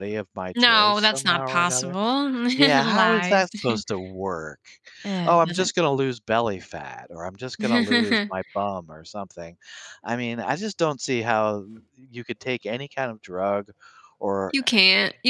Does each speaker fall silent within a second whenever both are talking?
No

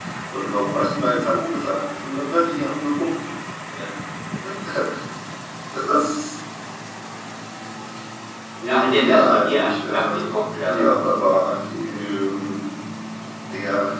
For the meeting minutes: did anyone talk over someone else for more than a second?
Yes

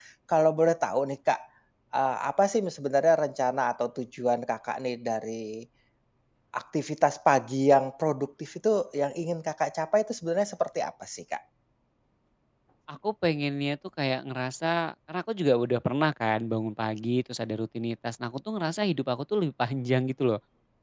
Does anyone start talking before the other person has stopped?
No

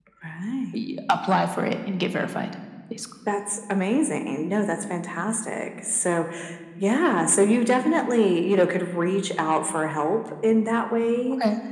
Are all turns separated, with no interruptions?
Yes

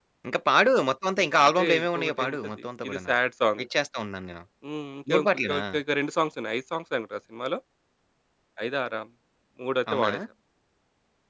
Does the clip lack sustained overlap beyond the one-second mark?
No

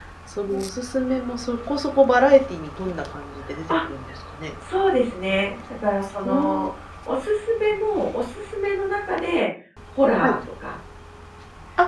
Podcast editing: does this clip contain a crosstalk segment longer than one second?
No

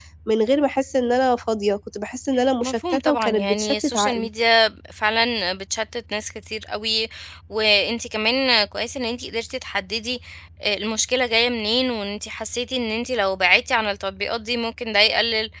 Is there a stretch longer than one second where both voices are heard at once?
Yes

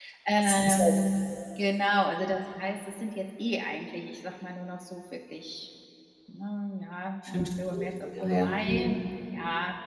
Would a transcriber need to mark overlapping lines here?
Yes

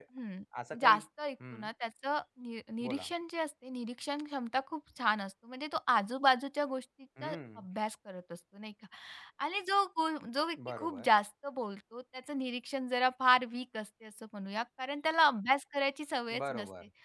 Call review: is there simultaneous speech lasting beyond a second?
No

